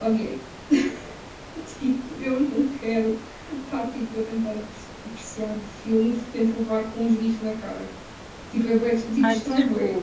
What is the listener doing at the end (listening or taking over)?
taking over